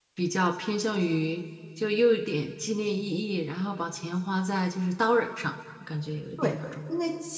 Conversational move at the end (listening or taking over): taking over